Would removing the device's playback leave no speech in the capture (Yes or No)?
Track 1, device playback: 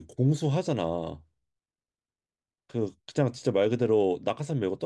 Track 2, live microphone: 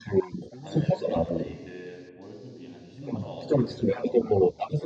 No